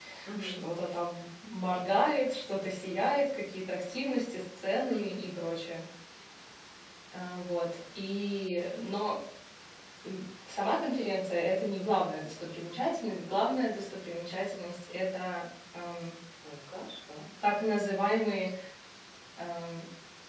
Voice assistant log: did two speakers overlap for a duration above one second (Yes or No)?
No